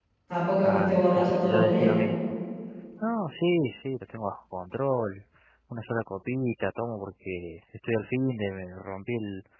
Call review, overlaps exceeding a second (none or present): present